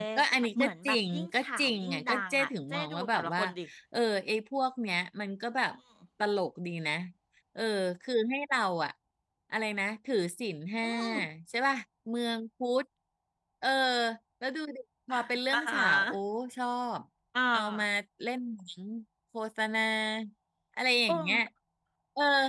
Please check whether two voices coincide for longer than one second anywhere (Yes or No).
Yes